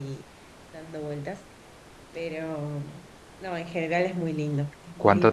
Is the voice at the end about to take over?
Yes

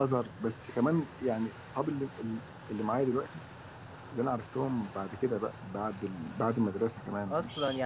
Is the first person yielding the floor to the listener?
Yes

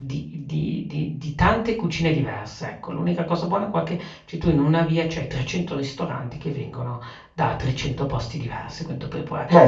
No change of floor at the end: No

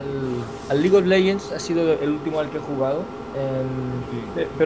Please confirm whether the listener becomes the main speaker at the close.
No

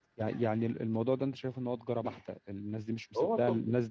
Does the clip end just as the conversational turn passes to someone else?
No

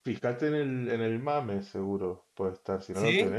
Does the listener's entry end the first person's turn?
No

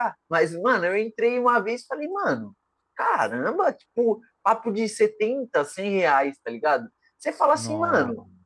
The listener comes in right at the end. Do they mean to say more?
No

